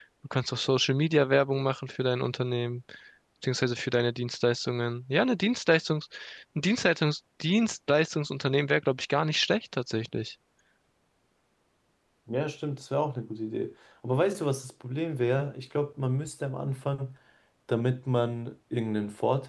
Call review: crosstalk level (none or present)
none